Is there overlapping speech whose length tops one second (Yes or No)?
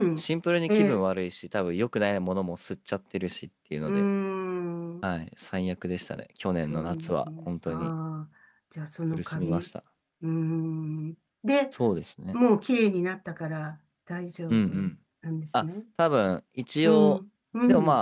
Yes